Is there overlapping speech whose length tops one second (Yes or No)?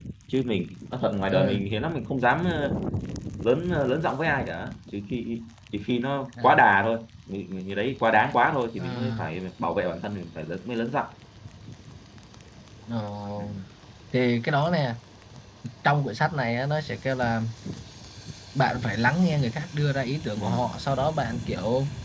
No